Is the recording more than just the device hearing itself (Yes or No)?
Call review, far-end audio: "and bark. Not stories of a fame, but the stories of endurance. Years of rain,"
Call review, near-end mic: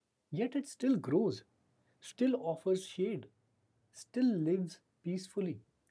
Yes